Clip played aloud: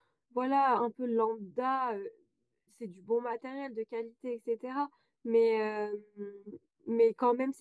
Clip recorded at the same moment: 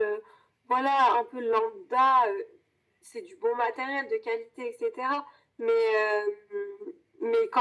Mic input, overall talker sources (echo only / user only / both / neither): echo only